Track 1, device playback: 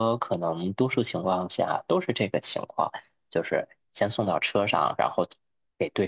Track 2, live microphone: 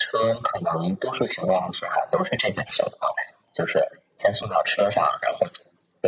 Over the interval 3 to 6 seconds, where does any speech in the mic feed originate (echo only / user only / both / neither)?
echo only